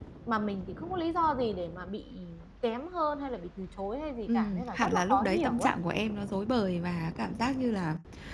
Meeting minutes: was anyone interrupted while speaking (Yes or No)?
Yes